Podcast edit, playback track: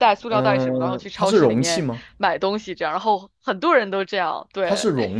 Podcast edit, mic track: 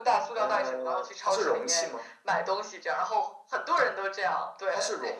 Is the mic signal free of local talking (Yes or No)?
Yes